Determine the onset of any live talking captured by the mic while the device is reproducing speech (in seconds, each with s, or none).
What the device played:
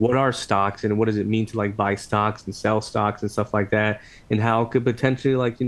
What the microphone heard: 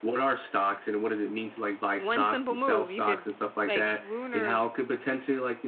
1.9 s